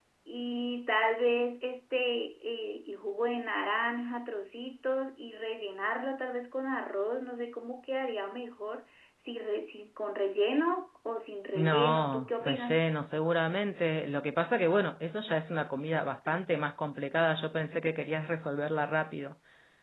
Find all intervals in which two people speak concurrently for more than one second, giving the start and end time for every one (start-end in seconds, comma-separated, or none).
11.6-12.8